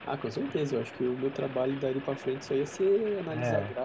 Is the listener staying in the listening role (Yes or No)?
Yes